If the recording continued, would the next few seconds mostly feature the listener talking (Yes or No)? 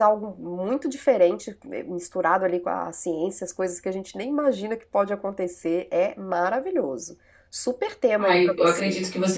Yes